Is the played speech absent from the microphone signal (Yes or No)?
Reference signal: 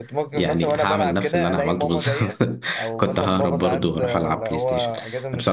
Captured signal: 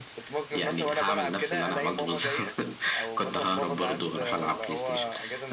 No